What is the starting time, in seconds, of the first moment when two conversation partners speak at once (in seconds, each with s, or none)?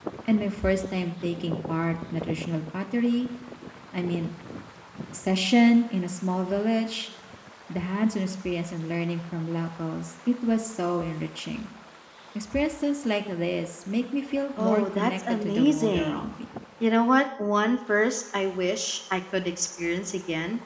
14.6 s